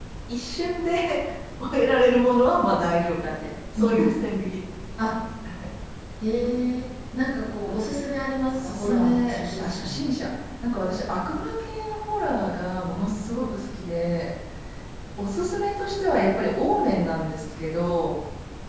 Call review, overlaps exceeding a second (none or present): present